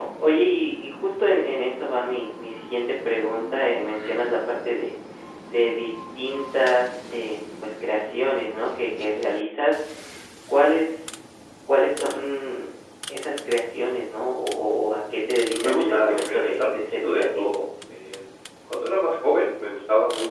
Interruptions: present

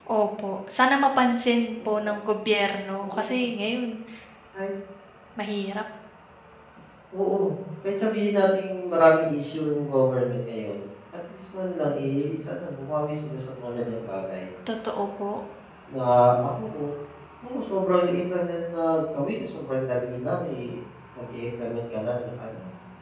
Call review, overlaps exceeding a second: none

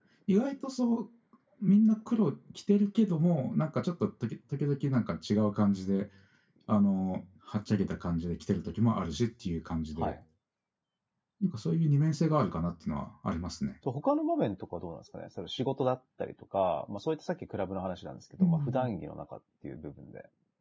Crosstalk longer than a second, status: none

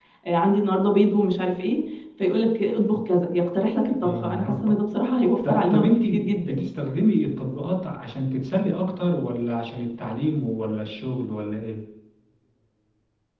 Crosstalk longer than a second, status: present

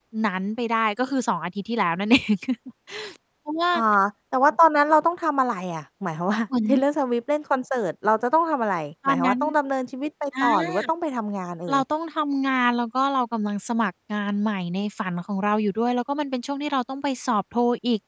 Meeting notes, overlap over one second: none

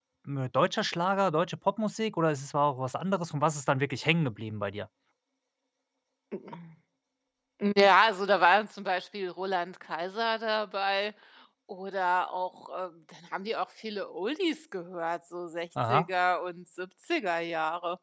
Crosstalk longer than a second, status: none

